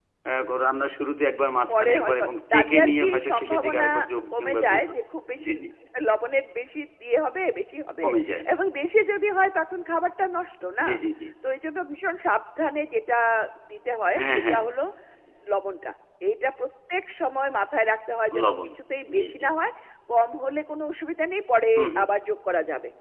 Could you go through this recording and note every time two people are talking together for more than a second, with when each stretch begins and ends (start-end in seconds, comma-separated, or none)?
1.7-3.8